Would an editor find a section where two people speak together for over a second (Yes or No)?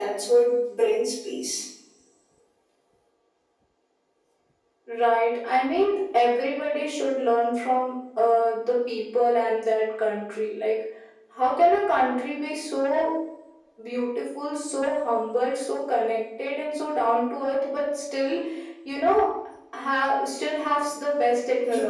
No